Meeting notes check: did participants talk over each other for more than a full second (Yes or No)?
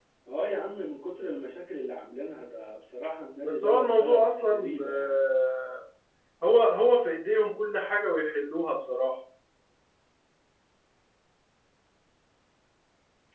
Yes